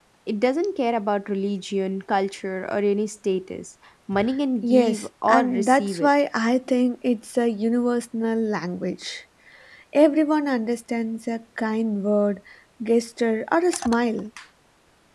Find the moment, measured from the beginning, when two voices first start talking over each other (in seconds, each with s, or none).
4.6 s